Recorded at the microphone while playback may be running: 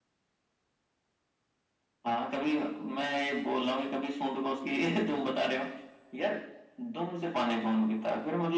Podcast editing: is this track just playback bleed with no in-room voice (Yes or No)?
Yes